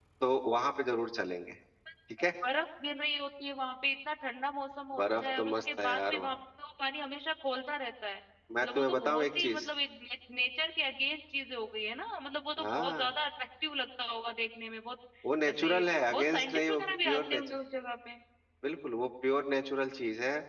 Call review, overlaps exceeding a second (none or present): present